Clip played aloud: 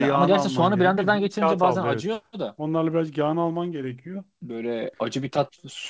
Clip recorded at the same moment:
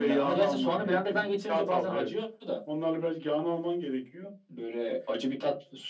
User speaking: No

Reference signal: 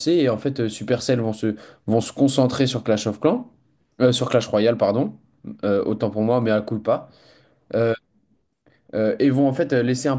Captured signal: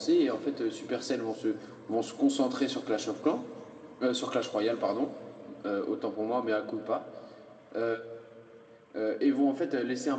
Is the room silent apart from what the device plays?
Yes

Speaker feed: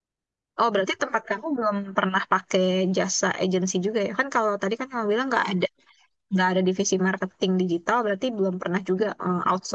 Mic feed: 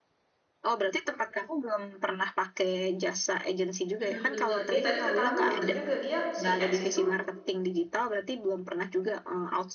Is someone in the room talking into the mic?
Yes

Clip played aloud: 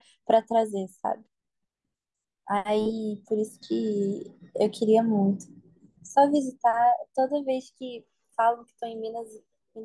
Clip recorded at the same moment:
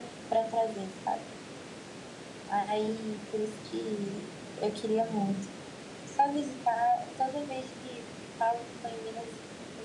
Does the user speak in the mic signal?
No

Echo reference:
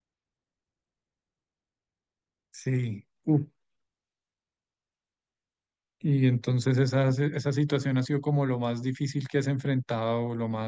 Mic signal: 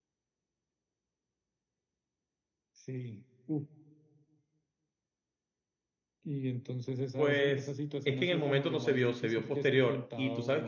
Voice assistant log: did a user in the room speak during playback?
Yes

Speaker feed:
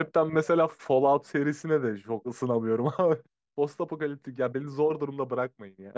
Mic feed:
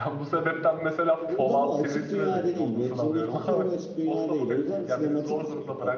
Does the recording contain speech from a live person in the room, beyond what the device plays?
Yes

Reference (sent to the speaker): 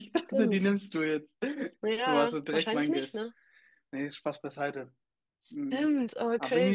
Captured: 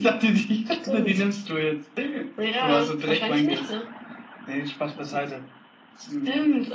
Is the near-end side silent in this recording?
Yes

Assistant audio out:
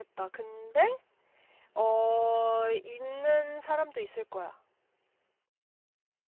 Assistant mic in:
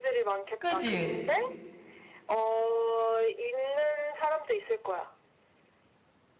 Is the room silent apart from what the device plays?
No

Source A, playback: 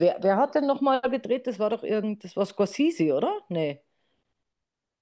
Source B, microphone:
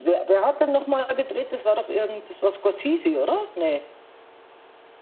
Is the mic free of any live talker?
Yes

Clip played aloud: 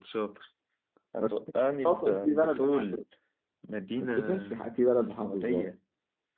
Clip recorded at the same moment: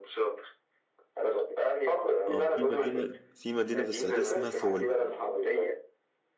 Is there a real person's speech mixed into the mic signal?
Yes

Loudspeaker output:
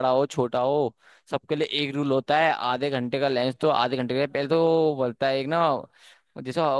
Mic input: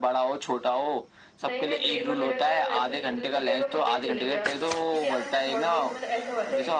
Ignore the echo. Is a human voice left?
Yes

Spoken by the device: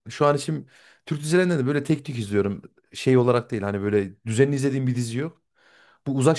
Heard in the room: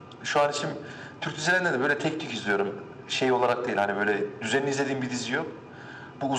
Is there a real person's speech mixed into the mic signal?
No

